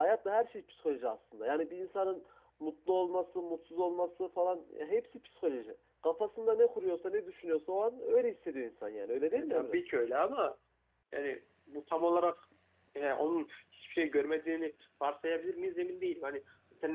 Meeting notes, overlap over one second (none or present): none